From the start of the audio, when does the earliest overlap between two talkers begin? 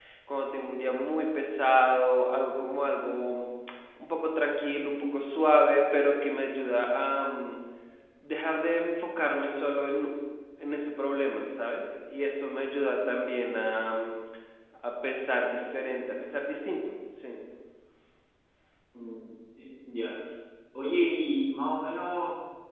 none

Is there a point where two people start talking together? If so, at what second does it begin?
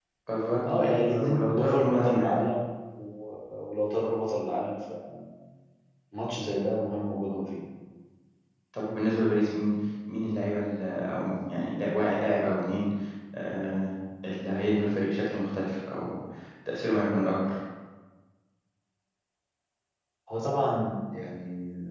1 s

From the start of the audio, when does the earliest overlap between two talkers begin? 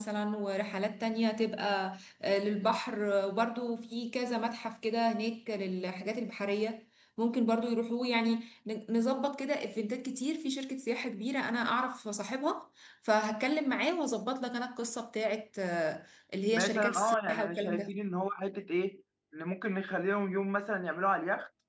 17 s

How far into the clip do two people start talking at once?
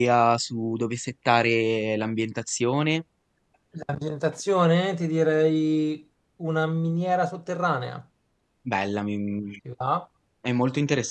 none

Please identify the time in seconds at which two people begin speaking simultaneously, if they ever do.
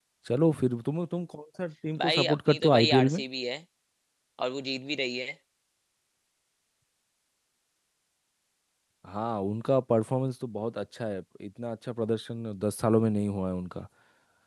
2 s

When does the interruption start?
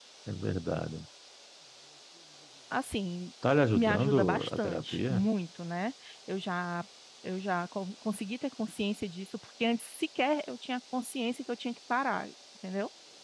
4 s

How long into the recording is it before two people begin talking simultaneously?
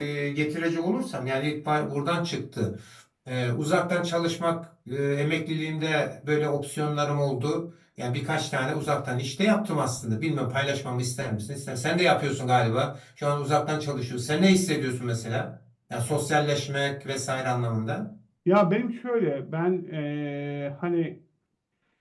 none

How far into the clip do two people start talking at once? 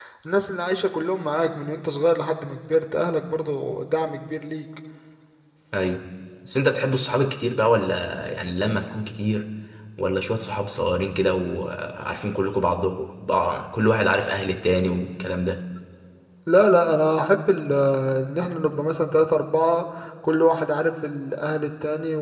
none

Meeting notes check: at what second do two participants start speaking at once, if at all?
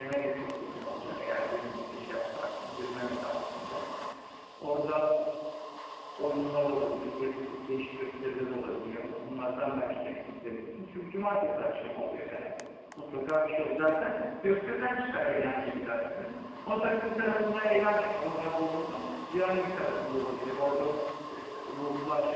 none

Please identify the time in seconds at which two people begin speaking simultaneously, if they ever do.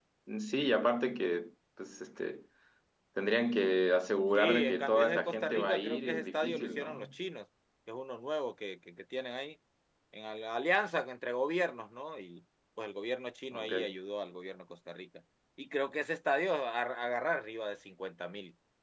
4 s

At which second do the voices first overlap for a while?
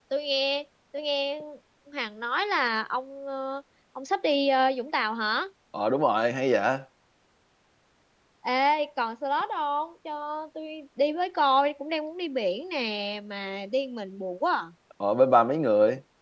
none

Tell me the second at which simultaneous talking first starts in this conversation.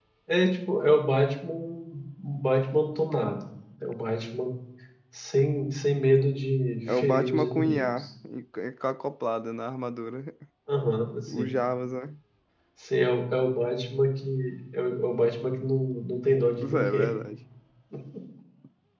7 s

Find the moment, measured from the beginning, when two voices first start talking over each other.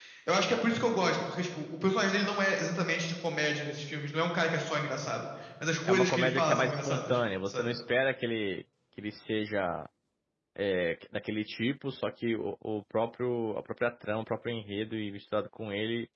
6 s

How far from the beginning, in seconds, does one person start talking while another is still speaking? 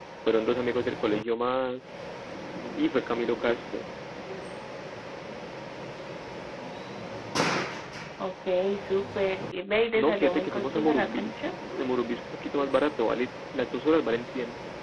10 s

